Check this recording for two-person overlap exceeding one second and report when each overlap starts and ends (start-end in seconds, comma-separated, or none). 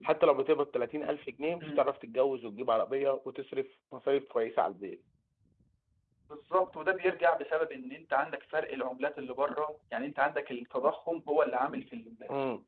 none